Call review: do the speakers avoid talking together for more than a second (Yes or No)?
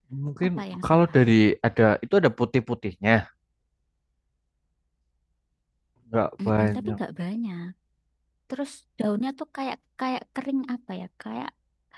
Yes